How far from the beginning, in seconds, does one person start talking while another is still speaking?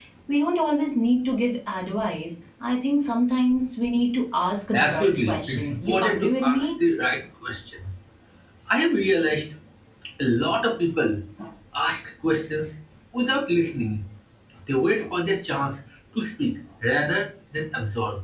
4.7 s

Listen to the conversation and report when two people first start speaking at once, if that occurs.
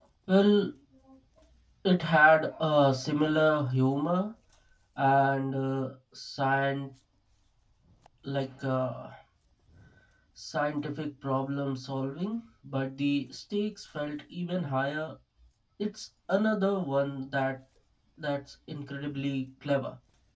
none

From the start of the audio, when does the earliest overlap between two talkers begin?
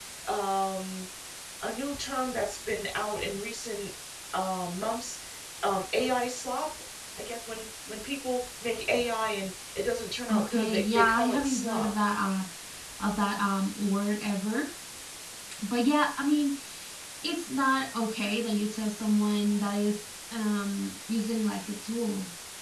10.3 s

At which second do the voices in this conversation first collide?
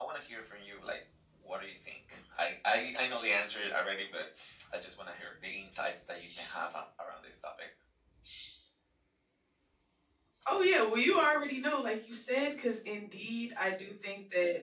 none

